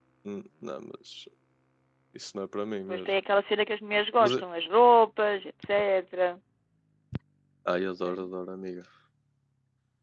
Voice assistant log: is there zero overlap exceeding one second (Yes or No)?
Yes